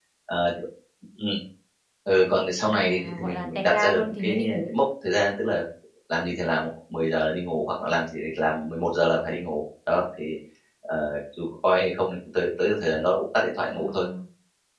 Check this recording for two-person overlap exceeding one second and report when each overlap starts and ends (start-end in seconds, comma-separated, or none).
2.6-4.6